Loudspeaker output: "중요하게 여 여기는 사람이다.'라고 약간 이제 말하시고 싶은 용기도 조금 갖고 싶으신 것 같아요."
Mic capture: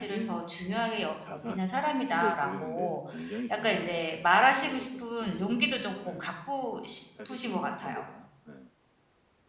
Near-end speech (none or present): present